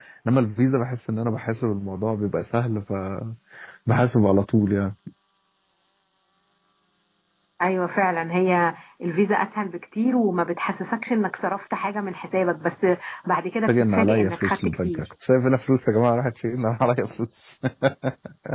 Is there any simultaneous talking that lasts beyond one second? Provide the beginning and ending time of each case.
13.7-15.0

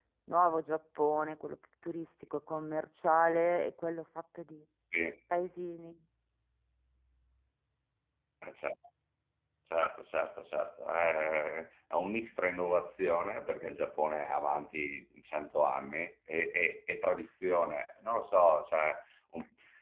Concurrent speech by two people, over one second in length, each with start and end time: none

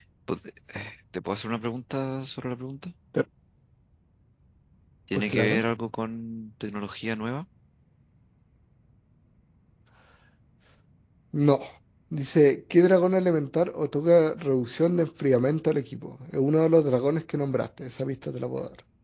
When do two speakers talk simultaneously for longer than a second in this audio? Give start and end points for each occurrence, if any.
none

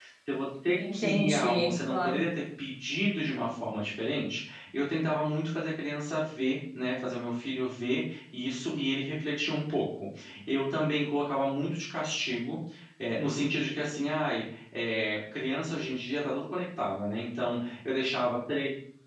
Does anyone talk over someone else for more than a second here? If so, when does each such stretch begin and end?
0.8-2.2

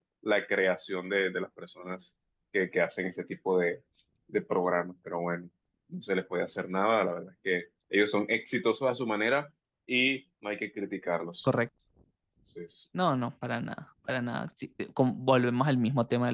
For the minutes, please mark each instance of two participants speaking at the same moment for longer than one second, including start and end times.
none

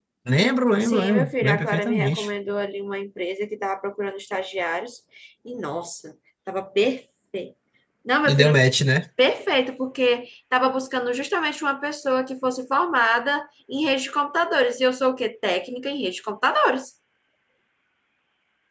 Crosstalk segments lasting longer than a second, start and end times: 0.8-2.3

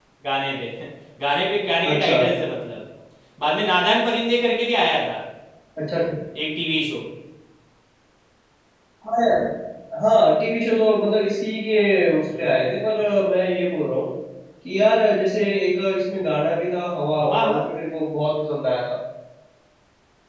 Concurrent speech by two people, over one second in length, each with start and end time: none

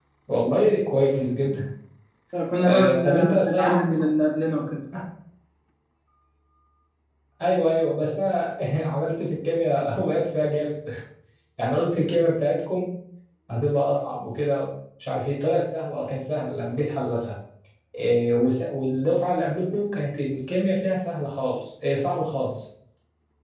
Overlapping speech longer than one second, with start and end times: 2.7-4.0

